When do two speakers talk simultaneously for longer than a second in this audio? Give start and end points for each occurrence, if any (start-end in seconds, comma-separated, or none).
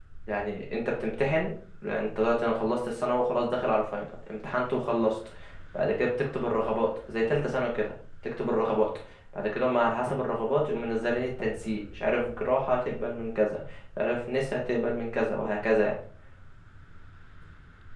none